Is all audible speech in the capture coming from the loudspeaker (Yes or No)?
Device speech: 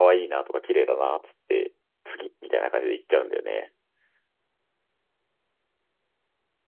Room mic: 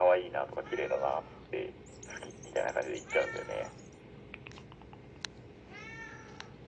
Yes